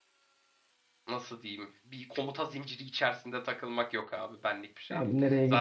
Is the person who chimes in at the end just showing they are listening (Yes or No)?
No